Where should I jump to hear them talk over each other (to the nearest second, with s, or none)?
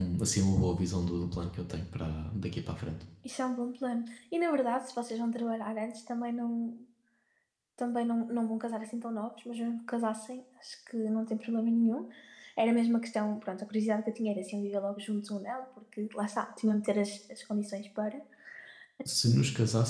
none